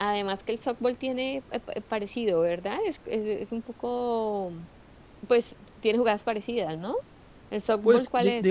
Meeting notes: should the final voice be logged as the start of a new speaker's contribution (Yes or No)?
Yes